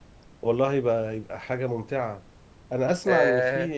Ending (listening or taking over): listening